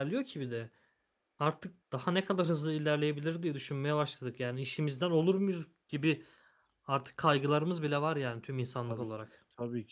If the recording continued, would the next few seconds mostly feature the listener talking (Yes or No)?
Yes